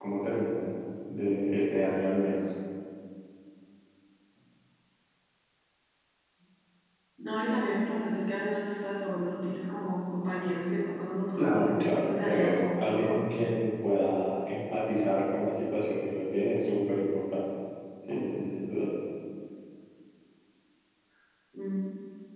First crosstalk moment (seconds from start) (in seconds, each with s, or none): 11.3 s